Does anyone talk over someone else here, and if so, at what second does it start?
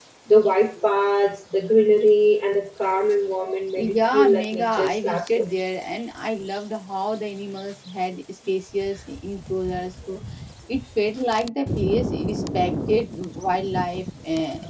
3.7 s

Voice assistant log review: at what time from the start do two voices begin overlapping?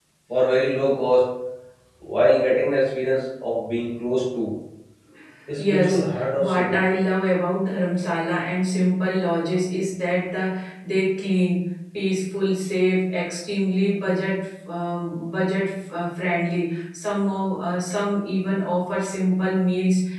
5.6 s

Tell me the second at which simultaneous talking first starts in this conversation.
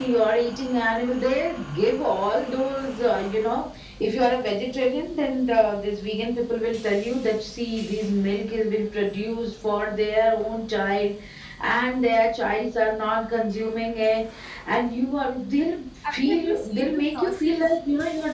16.1 s

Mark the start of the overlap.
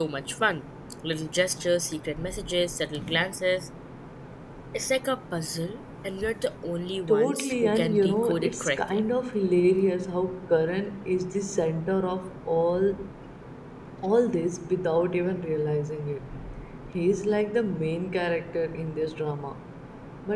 7.1 s

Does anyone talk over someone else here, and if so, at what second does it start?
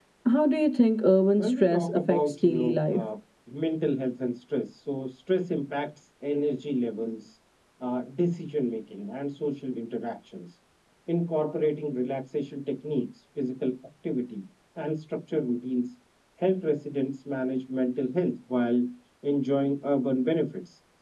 1.4 s

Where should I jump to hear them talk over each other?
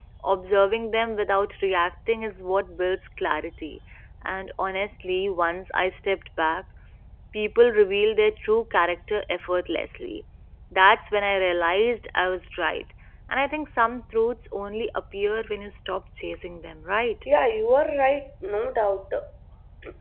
none

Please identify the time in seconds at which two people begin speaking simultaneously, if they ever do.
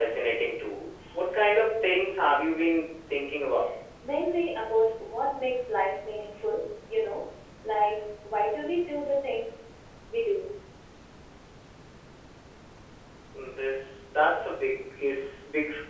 none

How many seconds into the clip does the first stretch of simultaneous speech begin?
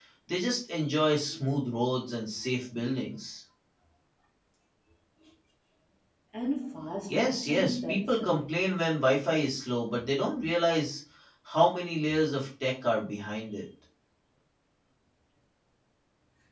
7.1 s

